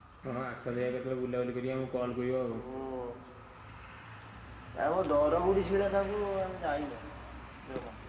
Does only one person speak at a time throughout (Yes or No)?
Yes